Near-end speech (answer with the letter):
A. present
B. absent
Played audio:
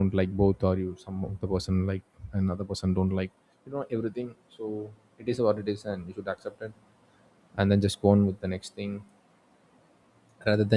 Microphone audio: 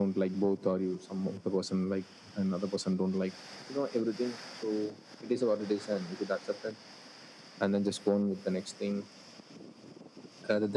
B